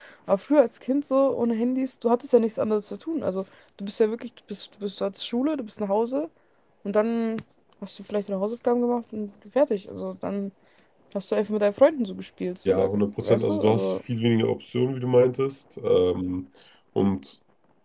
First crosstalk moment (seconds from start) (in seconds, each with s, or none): 12.6 s